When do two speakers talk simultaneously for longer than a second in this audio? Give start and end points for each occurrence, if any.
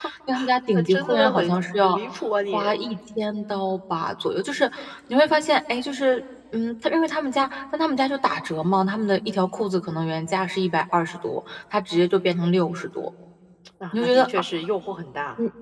0.7-2.0

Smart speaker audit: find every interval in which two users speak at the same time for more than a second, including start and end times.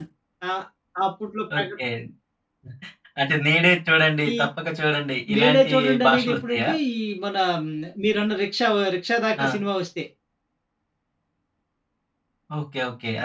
5.4-6.7

